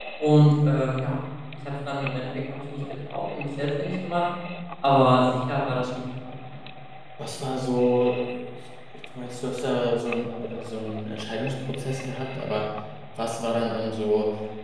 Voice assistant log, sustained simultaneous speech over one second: none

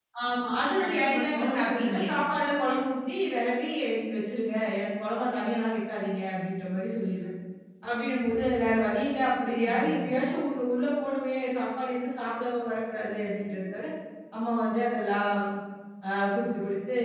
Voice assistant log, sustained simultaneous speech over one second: present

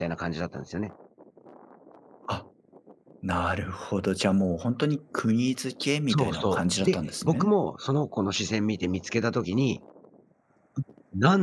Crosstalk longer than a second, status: present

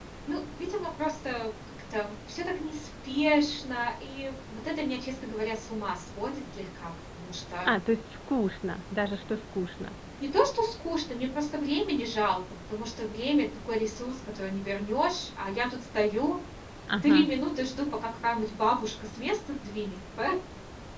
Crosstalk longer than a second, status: none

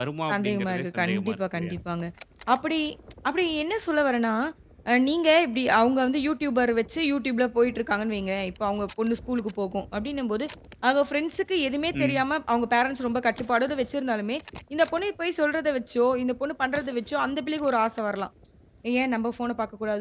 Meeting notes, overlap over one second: present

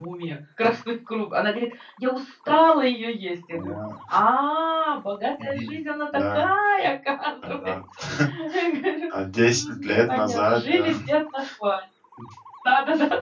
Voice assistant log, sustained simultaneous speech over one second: present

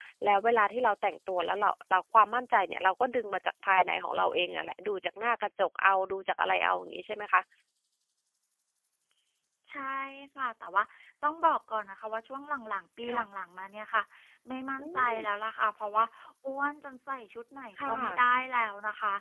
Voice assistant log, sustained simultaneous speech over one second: none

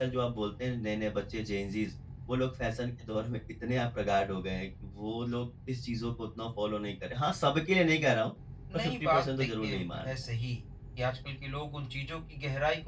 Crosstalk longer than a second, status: present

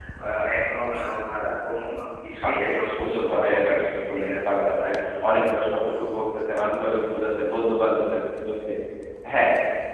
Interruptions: present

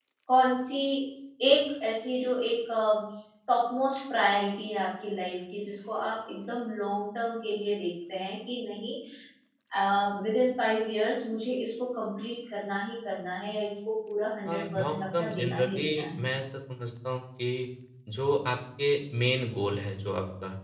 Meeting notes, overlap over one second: present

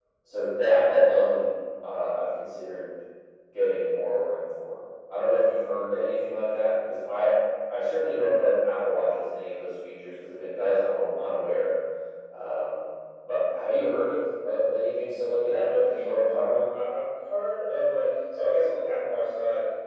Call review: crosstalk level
present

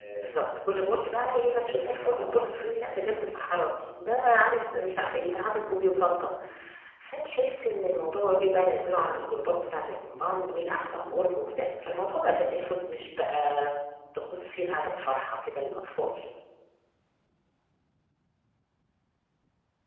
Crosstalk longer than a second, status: present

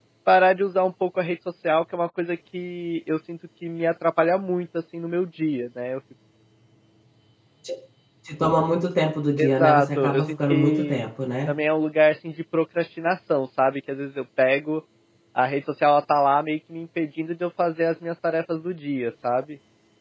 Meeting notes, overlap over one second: present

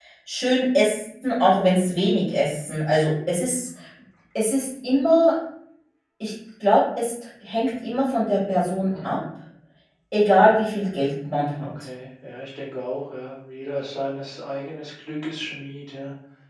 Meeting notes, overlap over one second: none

